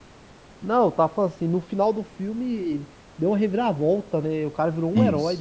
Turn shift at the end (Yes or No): Yes